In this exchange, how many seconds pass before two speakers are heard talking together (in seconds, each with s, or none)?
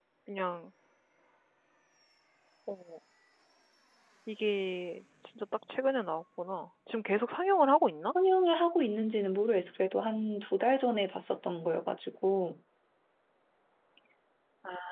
none